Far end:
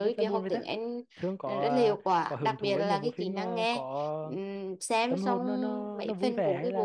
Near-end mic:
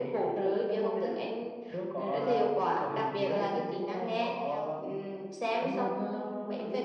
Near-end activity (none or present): present